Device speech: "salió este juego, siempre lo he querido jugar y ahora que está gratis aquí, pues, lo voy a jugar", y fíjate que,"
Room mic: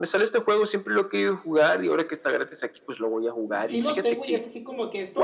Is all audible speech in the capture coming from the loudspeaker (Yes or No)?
No